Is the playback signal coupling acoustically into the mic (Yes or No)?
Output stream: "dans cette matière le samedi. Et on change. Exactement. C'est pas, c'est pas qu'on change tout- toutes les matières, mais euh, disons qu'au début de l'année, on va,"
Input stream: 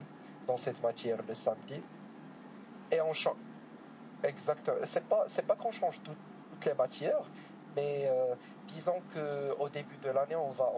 Yes